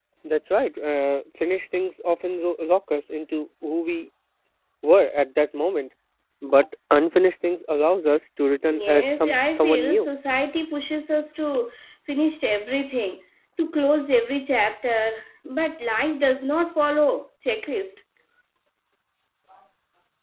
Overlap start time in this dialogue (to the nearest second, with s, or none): 9 s